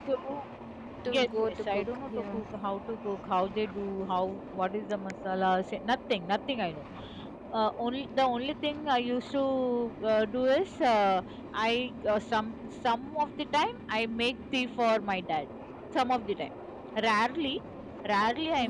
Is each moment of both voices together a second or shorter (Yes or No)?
No